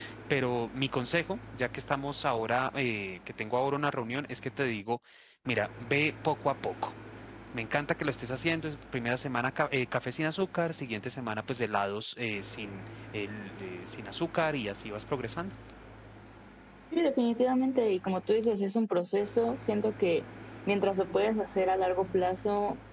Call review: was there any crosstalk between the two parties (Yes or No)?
No